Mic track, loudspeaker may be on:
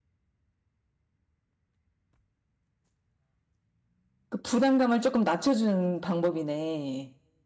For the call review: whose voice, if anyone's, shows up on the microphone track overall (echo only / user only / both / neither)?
user only